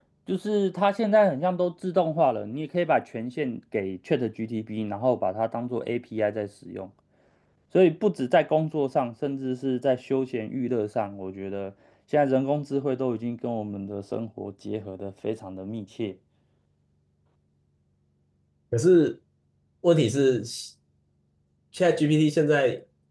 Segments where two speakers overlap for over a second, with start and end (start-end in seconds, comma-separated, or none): none